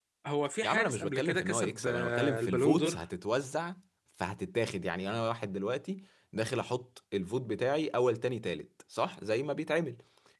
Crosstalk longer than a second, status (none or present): present